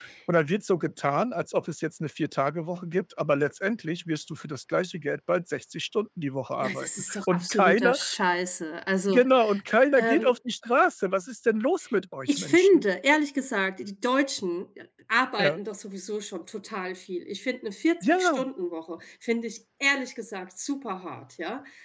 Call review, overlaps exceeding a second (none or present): present